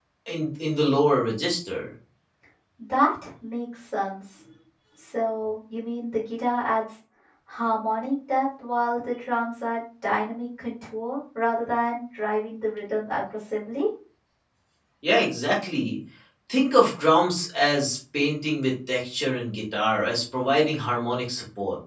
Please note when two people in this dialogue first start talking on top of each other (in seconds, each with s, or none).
none